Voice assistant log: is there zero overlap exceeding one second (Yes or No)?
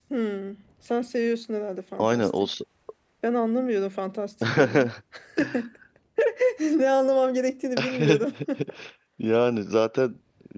Yes